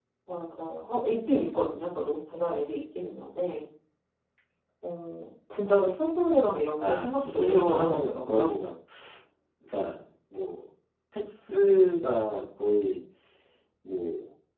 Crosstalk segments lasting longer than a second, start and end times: 6.8-8.7

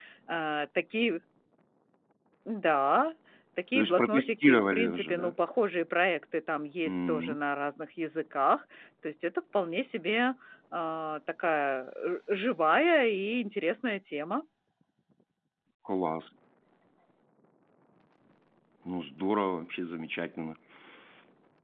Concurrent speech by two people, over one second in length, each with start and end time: 3.8-5.3

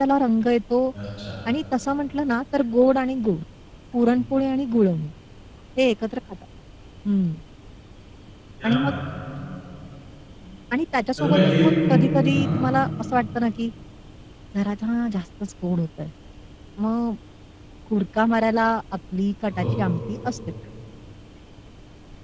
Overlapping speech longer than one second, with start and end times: 11.2-12.7

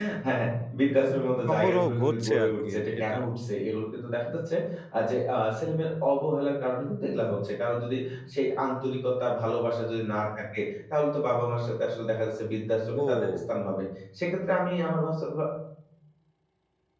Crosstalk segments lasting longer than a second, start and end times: 1.5-3.2

